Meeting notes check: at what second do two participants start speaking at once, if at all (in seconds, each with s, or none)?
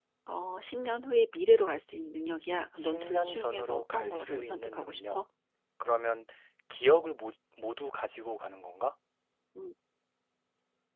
2.8 s